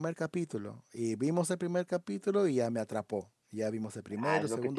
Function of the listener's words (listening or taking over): taking over